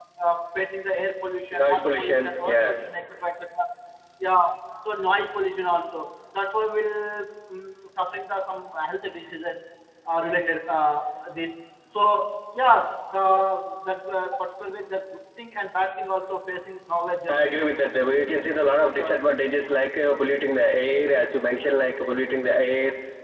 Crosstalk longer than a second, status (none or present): present